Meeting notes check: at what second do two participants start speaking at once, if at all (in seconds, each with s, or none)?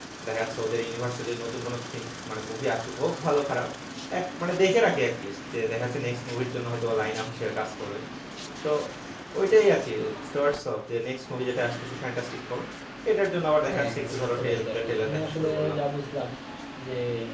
13.7 s